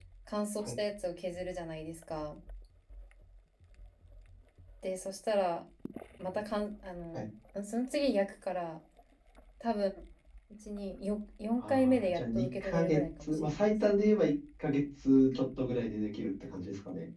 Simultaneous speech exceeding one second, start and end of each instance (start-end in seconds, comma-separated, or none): 11.6-13.6